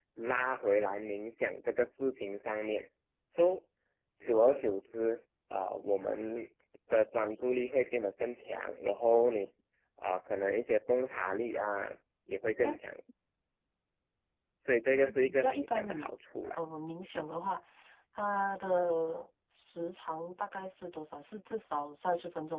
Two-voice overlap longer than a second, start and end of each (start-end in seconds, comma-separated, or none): 14.9-16.1